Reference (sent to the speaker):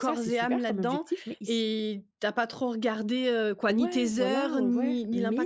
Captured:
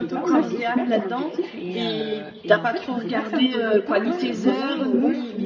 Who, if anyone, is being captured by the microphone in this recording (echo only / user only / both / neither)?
both